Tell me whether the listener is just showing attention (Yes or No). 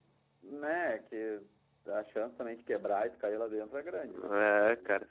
No